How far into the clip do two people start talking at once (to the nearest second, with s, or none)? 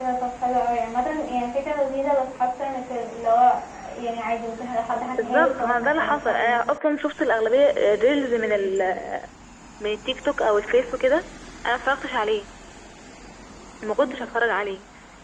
5 s